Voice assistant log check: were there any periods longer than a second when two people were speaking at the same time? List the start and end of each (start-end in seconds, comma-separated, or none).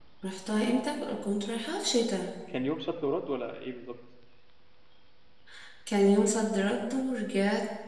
none